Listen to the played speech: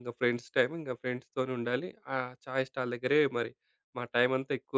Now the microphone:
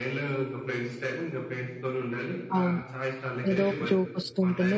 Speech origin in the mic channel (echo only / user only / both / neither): both